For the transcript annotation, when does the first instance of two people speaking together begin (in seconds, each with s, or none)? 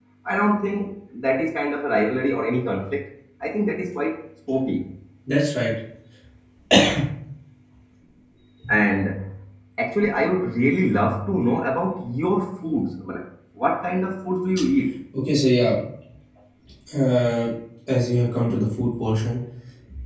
none